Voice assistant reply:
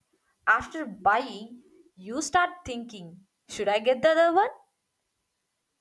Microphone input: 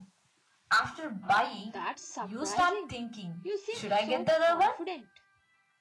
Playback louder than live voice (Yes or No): Yes